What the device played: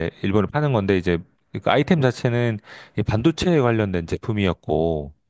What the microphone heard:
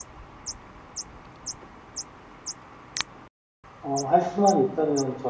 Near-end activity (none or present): present